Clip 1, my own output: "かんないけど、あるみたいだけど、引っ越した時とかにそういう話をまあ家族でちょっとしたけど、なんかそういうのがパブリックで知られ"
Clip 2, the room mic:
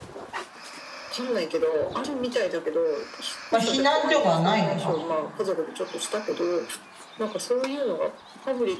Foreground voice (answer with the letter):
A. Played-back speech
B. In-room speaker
B